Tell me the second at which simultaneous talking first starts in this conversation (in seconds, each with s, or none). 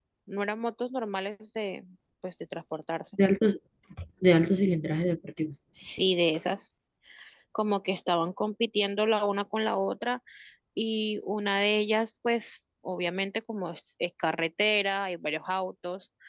none